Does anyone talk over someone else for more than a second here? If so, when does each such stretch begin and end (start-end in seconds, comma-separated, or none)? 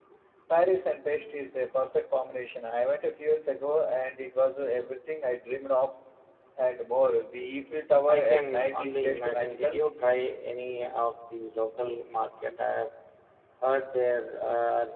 8.1-9.8